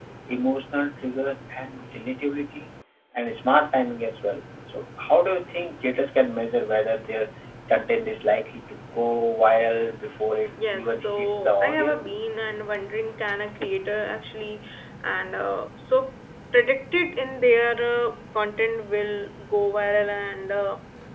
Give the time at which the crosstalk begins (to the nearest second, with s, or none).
11 s